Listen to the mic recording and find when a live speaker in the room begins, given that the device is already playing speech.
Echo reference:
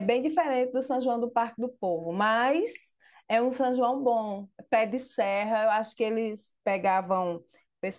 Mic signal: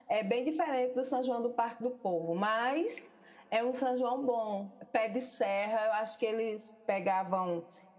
none

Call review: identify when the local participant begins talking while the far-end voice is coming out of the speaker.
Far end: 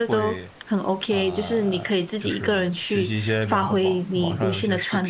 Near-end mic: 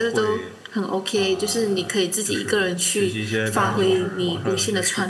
3.5 s

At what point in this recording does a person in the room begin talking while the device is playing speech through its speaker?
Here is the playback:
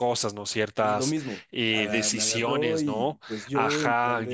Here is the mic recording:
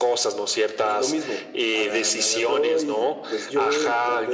none

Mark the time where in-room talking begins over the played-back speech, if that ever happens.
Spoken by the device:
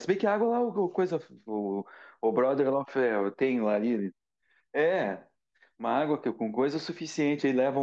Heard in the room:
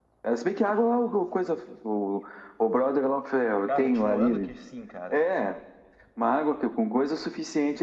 3.6 s

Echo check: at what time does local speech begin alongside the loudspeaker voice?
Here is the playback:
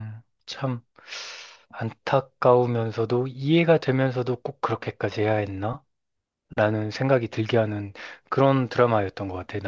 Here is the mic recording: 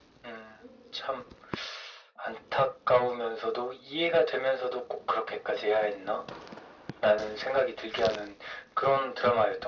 none

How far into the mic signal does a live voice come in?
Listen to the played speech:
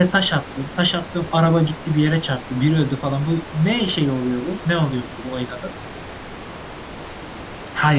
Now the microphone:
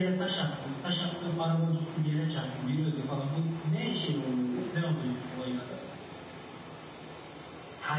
none

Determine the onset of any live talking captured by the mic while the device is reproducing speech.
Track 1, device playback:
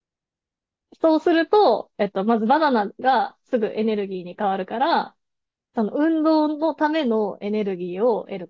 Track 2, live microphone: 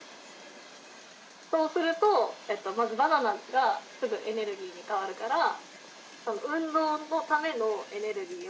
none

